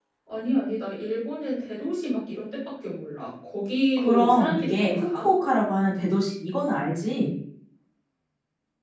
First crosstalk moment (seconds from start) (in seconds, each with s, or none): 4.0 s